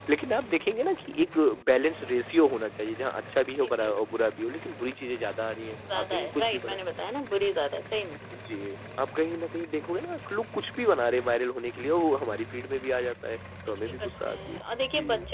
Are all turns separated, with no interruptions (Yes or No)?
No